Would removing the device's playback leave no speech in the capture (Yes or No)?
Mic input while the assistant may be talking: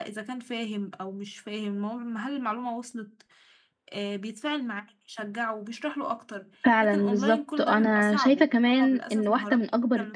No